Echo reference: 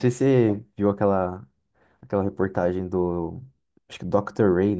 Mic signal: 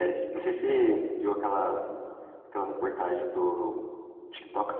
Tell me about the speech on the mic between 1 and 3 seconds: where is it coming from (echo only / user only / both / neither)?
echo only